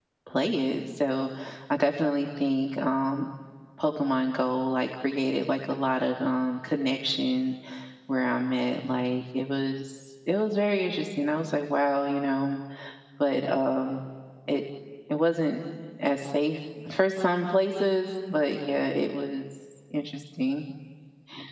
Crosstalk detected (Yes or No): No